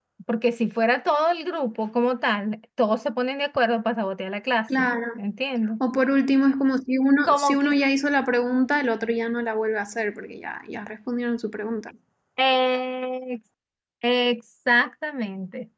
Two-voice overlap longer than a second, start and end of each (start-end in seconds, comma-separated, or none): none